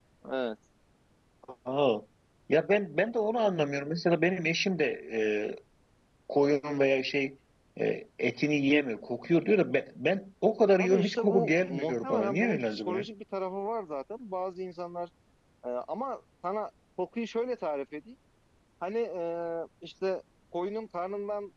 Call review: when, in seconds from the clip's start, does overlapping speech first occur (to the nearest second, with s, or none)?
11 s